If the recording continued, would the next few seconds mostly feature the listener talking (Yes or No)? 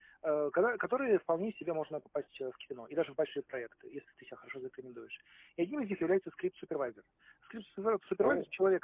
No